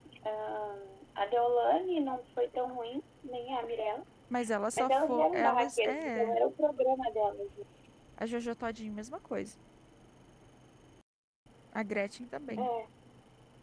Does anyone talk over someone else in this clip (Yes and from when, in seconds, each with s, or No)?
Yes, from 4.8 s